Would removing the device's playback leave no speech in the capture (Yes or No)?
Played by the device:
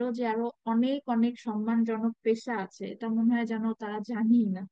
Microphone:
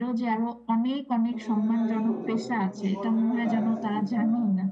No